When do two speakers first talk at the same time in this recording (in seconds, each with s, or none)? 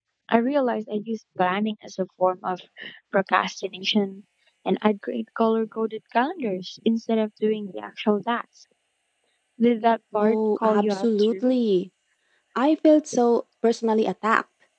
10.2 s